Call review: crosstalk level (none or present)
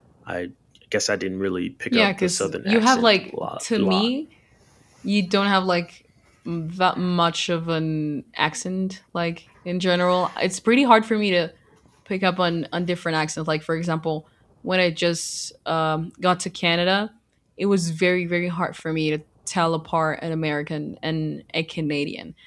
present